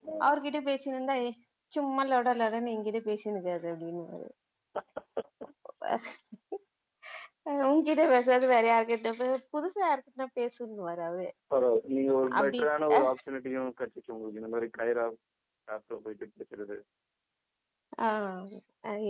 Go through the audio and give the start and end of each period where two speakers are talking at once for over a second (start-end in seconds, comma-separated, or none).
none